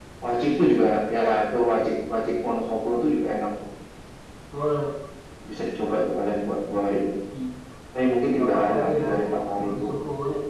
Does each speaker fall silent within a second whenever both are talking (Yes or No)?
No